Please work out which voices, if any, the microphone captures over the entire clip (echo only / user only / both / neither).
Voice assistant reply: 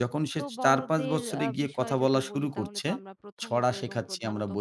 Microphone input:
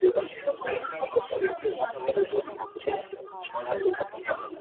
both